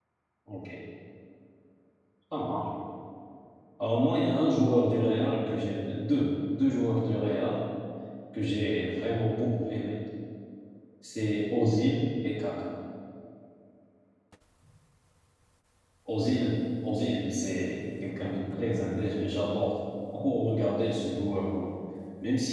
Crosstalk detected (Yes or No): No